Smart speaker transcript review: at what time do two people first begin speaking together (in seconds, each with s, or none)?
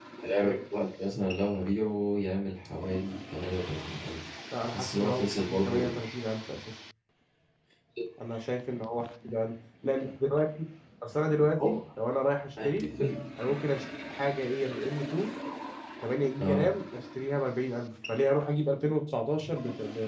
4.6 s